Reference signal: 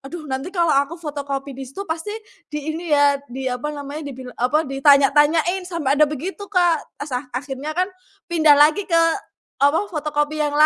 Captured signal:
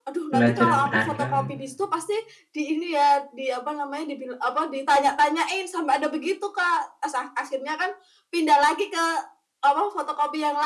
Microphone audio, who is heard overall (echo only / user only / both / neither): both